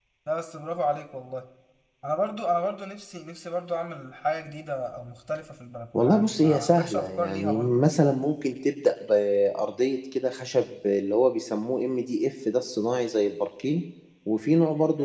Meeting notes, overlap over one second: present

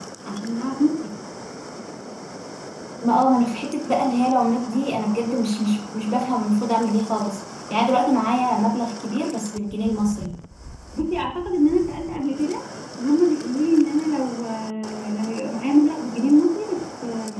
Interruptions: none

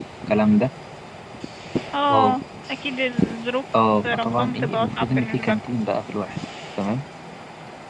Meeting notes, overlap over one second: present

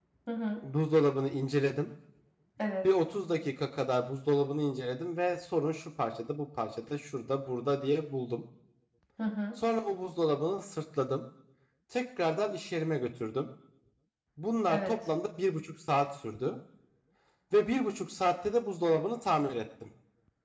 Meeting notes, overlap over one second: none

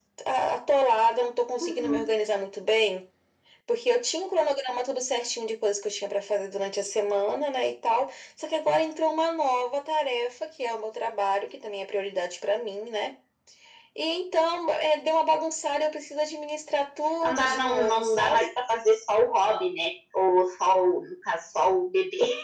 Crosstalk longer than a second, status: present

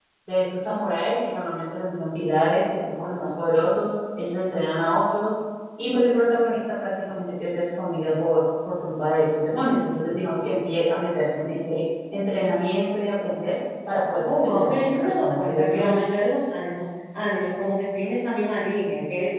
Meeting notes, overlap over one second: present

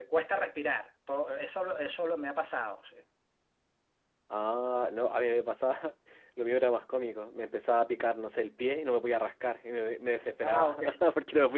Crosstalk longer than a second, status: none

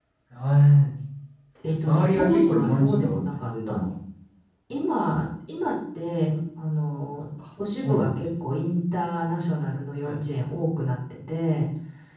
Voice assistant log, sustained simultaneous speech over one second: present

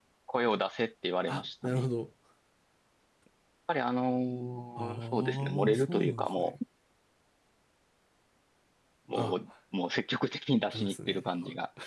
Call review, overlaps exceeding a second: present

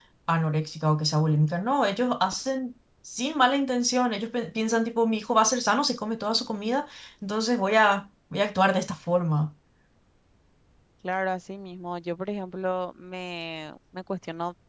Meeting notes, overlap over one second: none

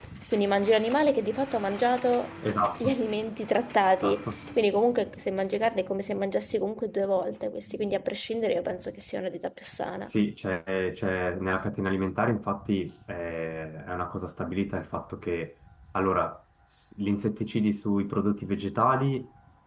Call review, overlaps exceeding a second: none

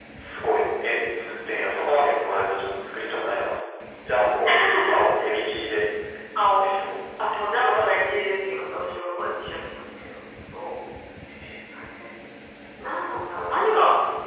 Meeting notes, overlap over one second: none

